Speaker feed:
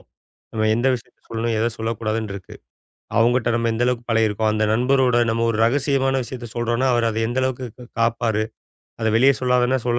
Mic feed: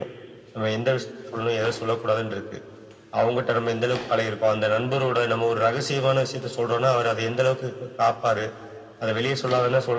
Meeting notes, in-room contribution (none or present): none